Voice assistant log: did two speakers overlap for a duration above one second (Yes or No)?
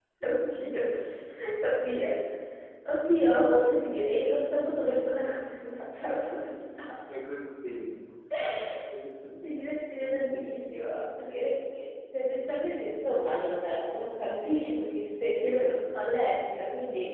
No